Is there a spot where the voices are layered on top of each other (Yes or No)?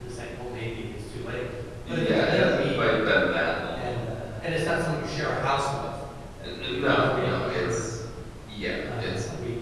Yes